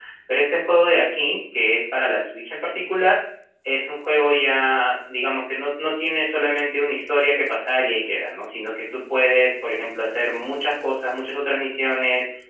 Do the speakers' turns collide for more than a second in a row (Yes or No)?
No